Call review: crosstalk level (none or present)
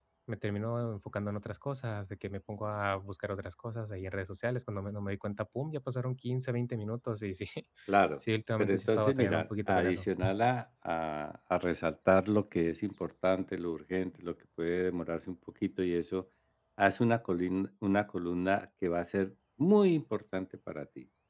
present